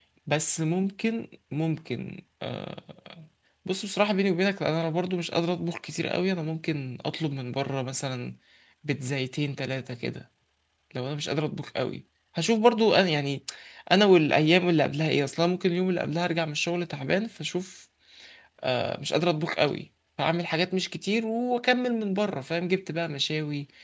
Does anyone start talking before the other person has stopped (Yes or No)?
No